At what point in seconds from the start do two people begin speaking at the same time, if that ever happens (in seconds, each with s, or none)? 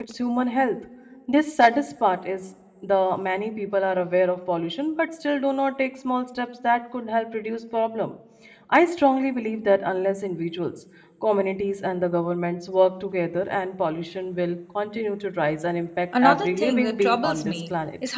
16.1 s